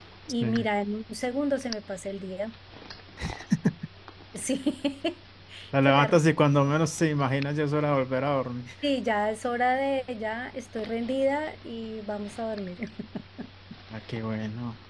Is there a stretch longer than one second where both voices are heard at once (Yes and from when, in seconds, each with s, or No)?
No